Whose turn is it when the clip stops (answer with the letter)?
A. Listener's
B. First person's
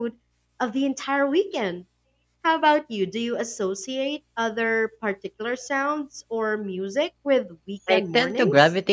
A